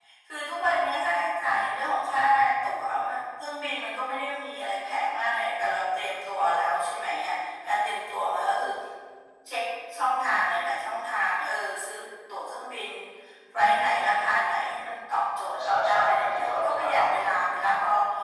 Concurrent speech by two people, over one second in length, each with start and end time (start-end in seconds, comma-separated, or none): 15.5-17.4